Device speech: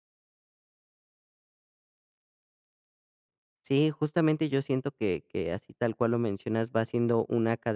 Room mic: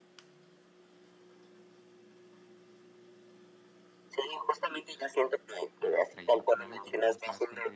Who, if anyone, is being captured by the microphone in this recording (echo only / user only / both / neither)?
both